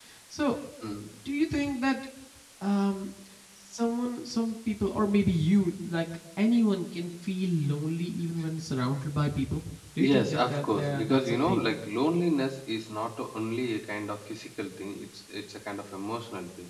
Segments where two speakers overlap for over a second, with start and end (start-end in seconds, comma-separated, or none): 10.0-11.8